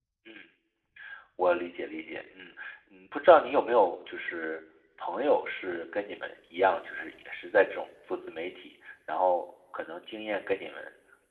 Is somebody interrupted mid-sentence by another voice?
No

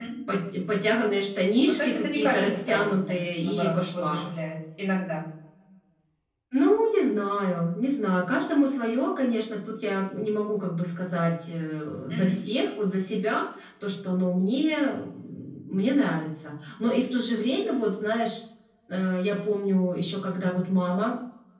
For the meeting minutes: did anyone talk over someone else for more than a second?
Yes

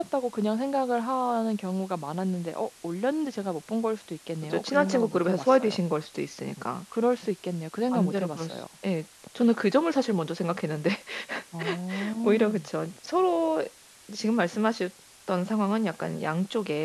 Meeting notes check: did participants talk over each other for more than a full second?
Yes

